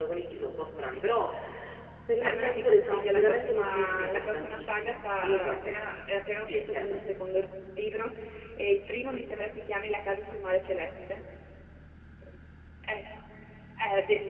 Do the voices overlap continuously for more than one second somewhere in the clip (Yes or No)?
Yes